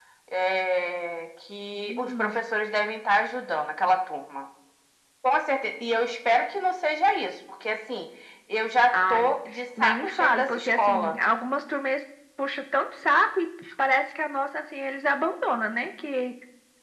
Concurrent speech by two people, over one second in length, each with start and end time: 9.8-11.2

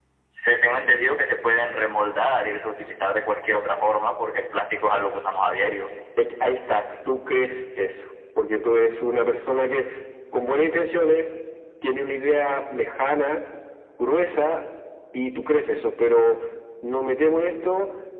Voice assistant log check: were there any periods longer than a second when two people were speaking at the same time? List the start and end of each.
none

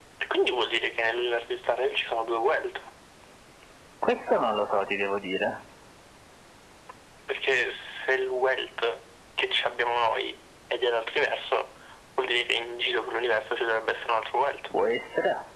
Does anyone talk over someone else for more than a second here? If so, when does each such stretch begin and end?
none

